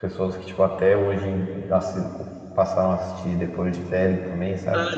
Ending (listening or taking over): taking over